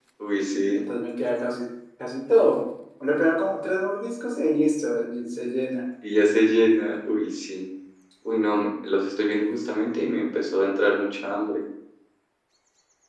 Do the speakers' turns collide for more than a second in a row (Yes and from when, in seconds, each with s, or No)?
No